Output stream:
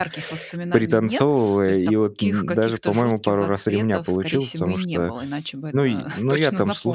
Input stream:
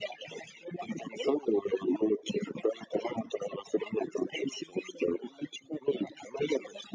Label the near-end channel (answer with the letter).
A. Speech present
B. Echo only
B